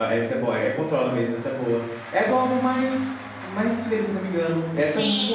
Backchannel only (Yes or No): No